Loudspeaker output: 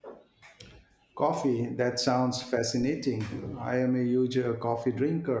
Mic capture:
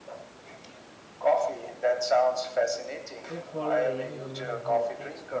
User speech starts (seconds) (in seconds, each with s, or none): 3.3 s